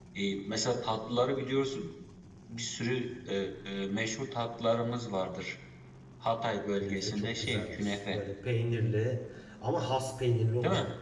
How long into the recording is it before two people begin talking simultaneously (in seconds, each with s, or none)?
6.7 s